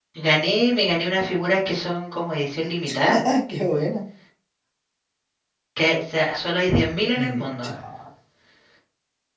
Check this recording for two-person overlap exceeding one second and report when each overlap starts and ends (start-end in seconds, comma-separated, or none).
none